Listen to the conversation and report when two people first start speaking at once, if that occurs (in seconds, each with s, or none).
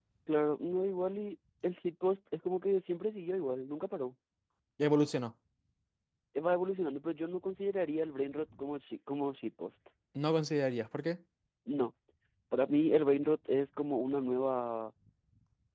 none